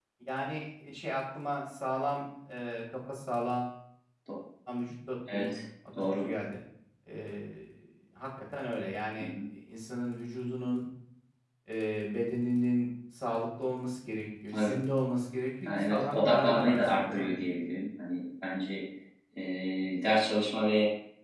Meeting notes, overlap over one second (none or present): present